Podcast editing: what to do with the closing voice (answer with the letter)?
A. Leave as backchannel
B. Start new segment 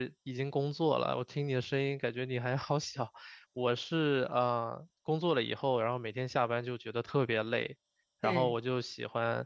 A